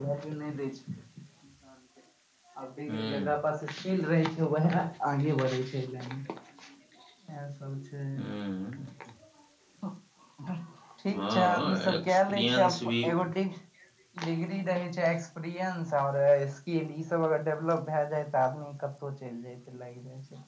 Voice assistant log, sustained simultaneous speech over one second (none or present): present